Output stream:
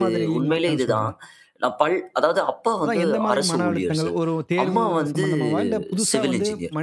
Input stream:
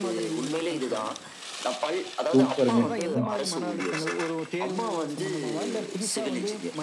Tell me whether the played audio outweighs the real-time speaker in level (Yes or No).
No